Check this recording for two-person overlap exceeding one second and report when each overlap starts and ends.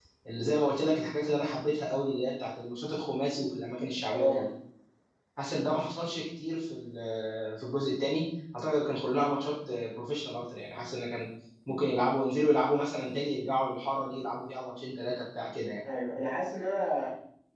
none

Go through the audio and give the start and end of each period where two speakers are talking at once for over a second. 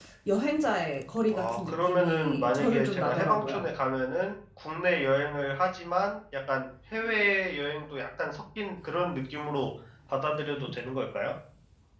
1.3-3.7

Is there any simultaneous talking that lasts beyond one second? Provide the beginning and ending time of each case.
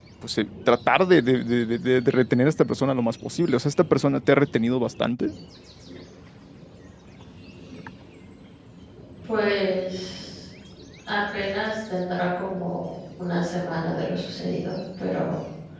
none

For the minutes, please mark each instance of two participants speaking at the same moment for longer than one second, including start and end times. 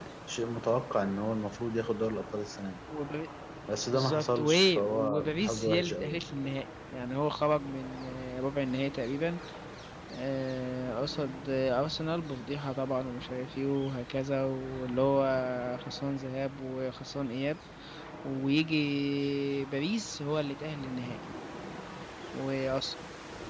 3.9-6.2

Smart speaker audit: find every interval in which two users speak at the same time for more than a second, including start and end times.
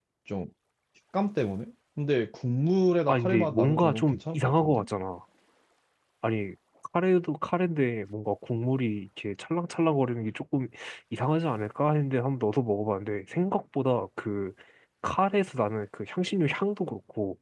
3.1-4.8

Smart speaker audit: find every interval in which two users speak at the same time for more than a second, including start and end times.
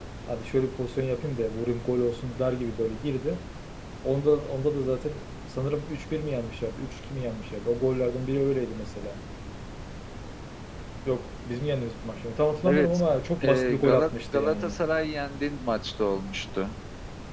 13.4-14.8

